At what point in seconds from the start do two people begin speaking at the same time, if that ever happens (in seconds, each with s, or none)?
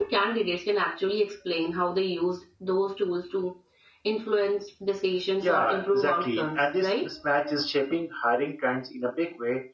5.4 s